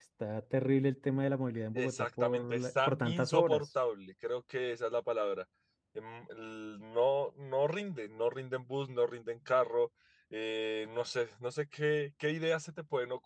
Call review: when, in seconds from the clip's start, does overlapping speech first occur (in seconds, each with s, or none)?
1.7 s